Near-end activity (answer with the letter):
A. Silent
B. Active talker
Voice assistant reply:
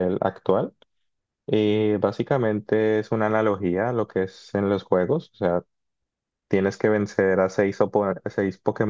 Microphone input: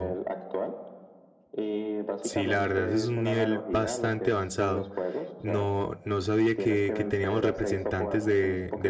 B